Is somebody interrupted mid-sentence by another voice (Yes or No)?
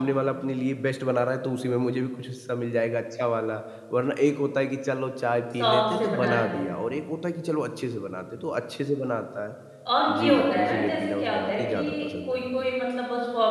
Yes